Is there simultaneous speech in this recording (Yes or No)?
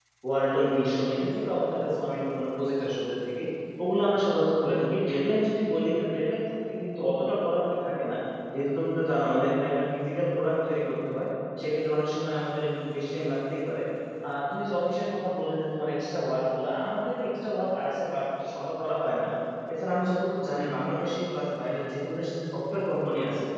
No